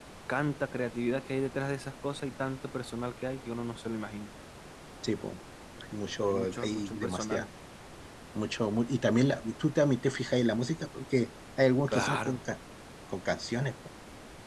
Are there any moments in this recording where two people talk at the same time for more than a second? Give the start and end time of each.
6.2-7.5

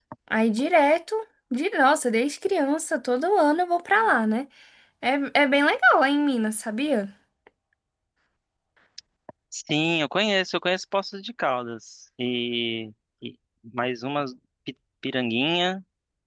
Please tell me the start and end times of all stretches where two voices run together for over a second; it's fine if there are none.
none

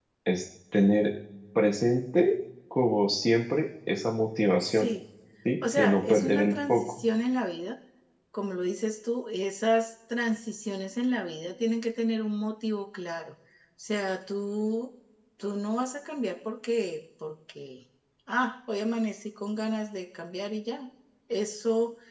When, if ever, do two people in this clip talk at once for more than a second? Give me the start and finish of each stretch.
5.8-7.0

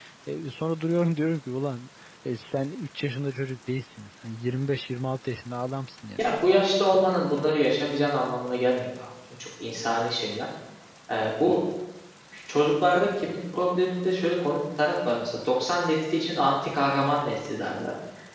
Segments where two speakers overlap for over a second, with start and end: none

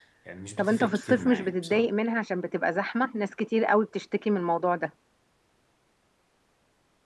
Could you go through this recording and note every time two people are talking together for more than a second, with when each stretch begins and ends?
0.6-1.9

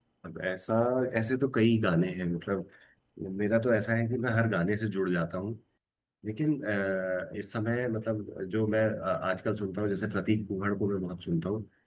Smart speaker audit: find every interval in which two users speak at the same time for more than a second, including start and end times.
none

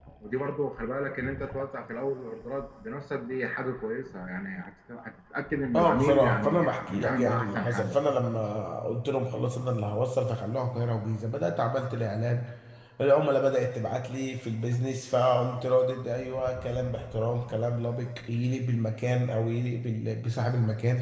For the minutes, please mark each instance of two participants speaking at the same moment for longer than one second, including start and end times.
5.7-7.9

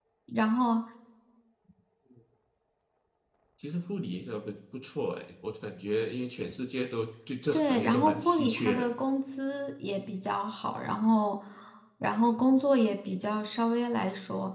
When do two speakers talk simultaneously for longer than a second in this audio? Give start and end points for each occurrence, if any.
7.5-8.9

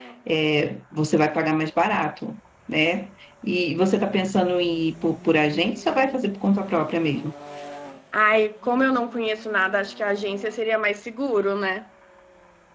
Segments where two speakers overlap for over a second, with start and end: none

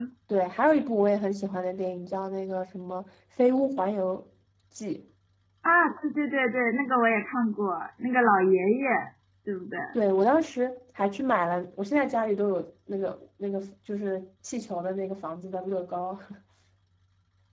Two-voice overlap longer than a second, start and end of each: none

